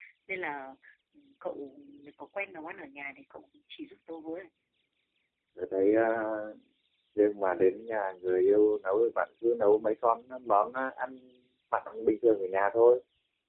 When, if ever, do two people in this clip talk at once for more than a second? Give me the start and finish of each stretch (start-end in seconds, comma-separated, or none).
none